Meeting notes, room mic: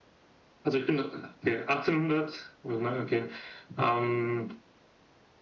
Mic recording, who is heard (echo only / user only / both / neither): echo only